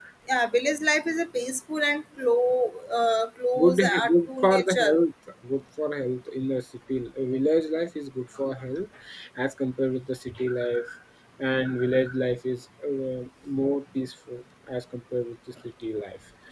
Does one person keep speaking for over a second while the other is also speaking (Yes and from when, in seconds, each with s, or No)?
Yes, from 3.6 s